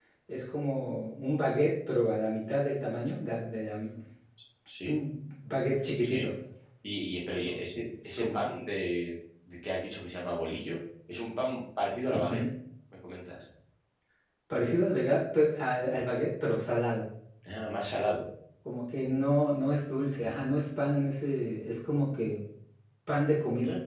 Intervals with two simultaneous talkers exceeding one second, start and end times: none

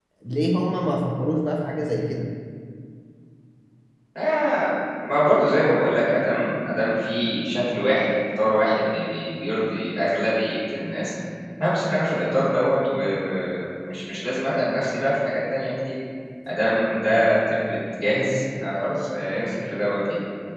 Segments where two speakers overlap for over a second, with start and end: none

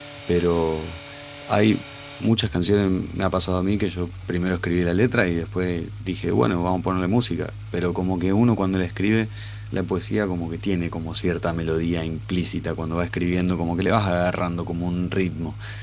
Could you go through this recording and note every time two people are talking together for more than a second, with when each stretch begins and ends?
none

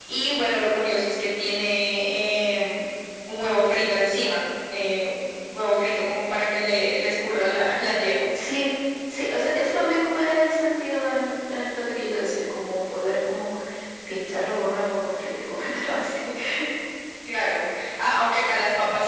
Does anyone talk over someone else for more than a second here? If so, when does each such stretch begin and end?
none

